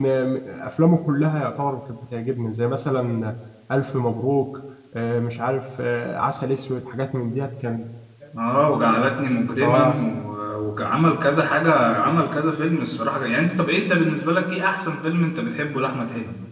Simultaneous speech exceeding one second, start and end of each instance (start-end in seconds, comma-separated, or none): none